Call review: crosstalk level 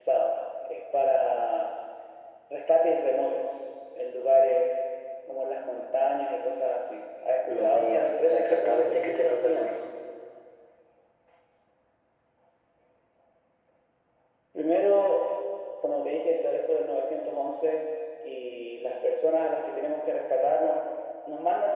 present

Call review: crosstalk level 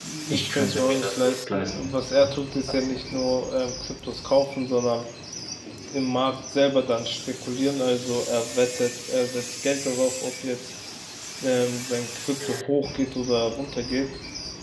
present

